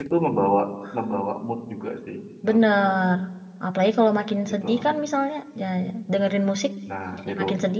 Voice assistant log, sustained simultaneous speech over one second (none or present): none